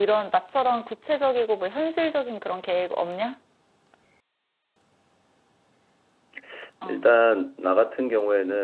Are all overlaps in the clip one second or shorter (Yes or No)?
Yes